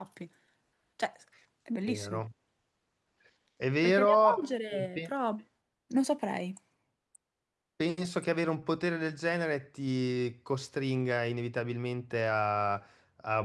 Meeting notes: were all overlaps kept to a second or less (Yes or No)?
No